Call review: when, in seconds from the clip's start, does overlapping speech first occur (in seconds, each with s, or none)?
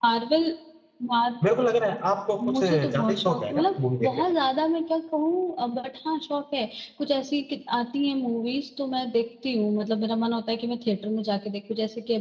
2.4 s